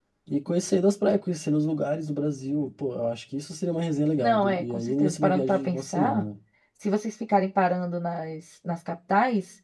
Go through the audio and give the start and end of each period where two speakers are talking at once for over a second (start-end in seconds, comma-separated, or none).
4.2-6.3